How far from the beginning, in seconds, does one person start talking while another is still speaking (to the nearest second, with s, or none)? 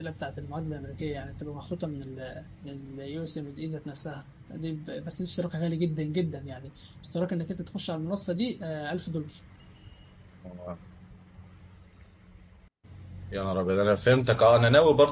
none